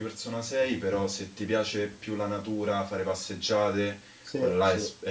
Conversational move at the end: listening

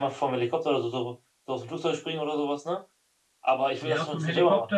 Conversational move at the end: taking over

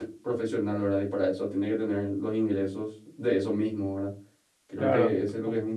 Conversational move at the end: listening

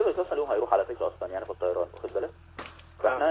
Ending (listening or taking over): listening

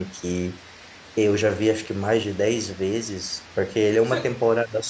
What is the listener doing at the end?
listening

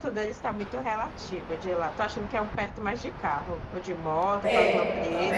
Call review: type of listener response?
taking over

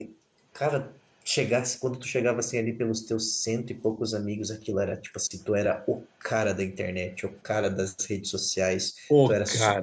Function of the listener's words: listening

